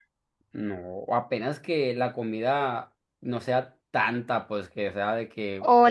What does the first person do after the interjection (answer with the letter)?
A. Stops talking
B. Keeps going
A